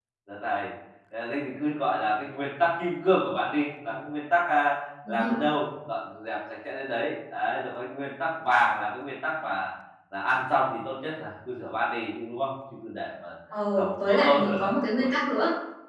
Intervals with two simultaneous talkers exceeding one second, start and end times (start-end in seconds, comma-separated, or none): 13.8-15.2